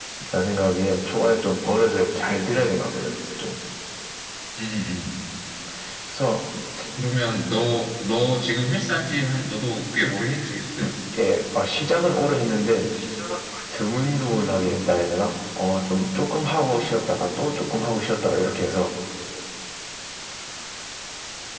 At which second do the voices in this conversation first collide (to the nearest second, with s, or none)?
none